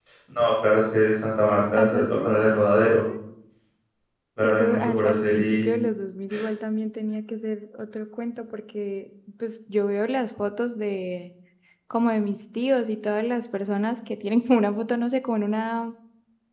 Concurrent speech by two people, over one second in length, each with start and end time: 4.4-5.7

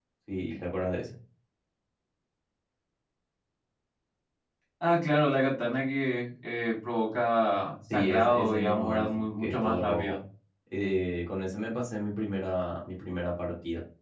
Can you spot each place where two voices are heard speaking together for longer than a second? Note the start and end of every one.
7.9-10.2

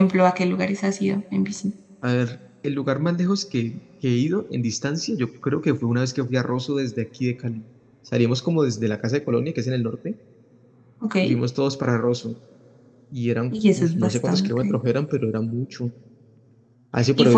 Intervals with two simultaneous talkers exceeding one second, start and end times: 13.5-14.8

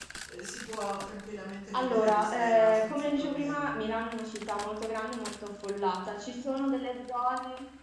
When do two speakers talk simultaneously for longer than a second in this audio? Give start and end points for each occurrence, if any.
1.8-3.7

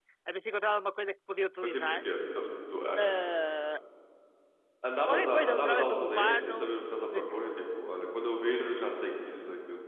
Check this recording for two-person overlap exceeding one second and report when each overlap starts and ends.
5.1-6.7

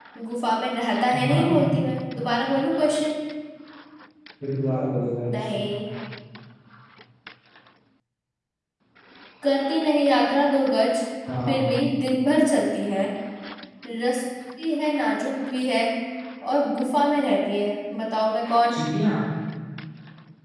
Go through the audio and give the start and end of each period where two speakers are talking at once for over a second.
none

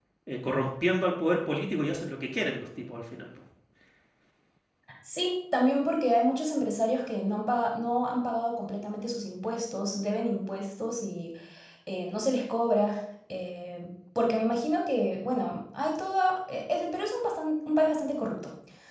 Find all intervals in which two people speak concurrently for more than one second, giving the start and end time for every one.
none

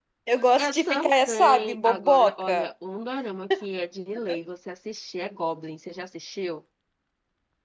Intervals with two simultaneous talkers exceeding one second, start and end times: 0.6-2.7

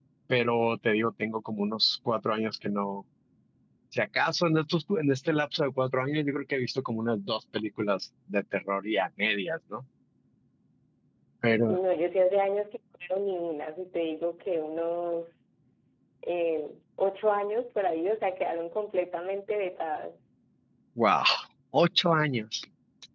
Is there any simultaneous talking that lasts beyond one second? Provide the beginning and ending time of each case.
none

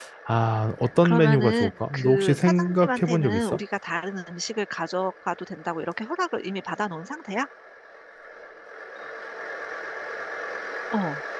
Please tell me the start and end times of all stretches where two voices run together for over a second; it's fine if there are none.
1.0-3.6

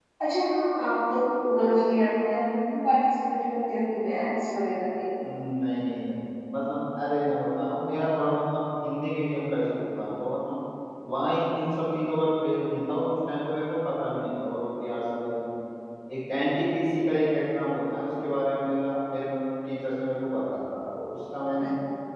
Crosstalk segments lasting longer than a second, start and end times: none

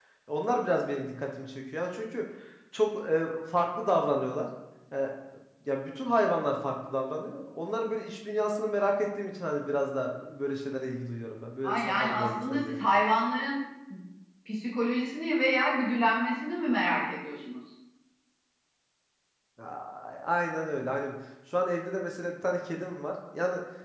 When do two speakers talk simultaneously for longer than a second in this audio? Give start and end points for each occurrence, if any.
11.6-12.8

